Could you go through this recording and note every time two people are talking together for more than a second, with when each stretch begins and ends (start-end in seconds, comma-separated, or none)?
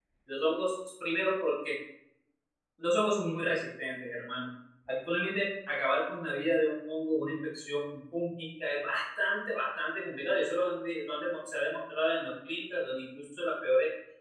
none